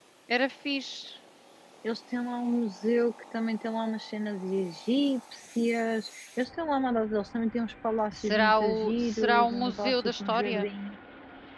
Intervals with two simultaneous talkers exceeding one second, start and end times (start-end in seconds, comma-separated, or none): 8.1-10.7